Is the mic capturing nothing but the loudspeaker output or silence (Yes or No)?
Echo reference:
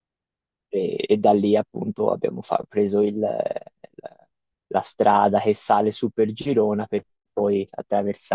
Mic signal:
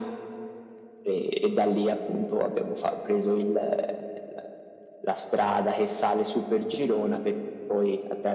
Yes